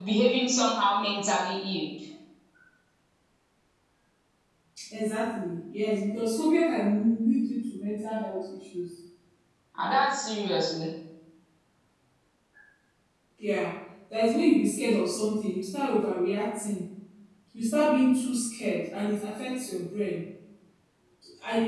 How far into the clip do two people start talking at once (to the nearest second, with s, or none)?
none